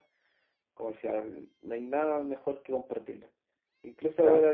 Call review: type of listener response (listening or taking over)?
listening